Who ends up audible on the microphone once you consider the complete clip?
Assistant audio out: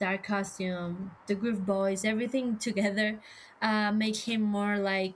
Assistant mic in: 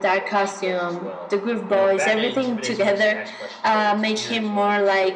both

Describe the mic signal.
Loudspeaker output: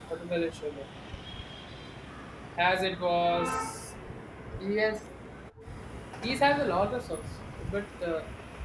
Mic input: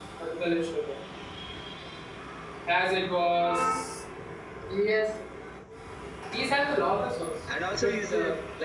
both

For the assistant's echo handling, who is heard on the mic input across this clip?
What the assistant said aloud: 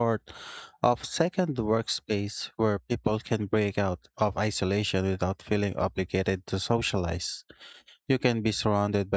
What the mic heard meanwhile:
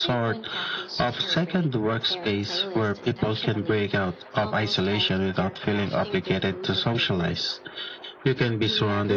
both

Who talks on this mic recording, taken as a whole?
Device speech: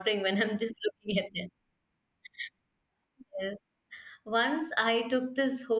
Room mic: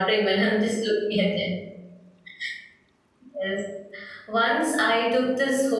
echo only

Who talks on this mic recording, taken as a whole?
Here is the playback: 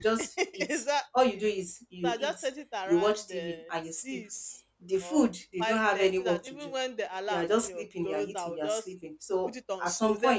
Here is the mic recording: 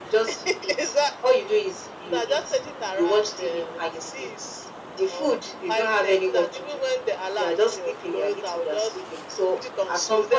echo only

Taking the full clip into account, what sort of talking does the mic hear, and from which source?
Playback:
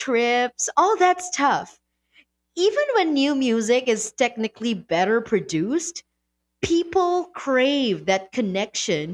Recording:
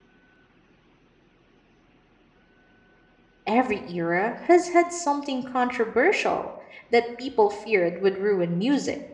user only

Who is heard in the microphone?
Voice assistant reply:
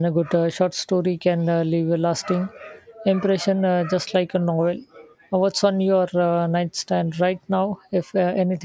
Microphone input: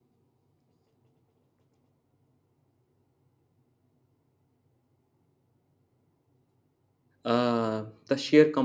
user only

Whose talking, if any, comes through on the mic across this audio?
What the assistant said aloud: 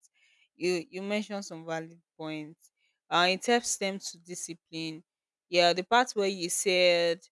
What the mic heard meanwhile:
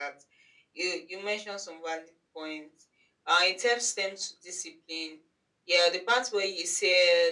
echo only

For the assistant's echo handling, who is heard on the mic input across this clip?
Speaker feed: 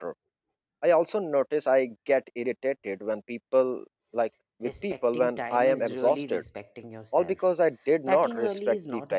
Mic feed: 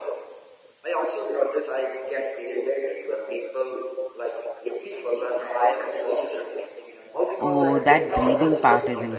both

